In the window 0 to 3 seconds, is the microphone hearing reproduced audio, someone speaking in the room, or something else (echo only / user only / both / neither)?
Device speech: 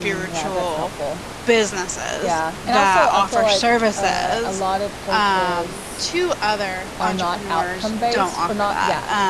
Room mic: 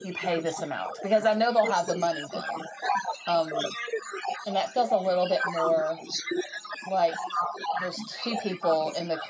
both